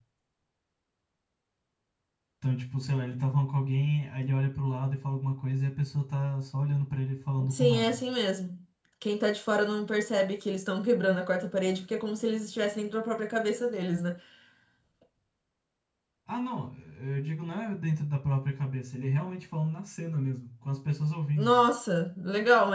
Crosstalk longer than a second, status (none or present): none